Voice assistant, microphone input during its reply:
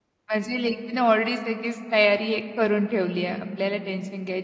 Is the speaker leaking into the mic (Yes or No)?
No